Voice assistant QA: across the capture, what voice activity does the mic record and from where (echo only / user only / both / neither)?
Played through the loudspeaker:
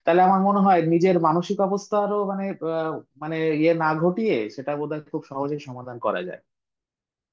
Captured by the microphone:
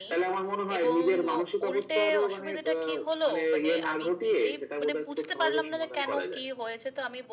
both